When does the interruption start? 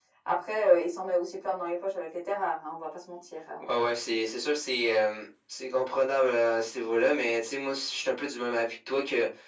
none

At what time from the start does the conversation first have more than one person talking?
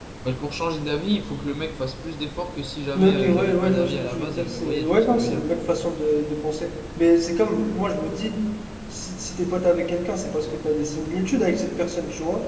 3.0 s

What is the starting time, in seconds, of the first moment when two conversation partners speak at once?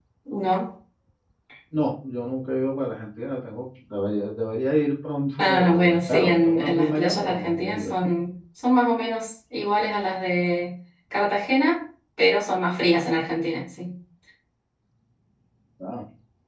5.4 s

